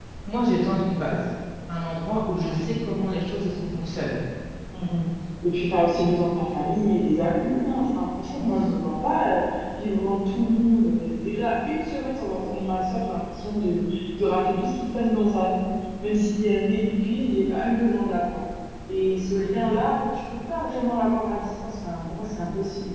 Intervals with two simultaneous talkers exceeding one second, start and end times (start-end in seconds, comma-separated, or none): none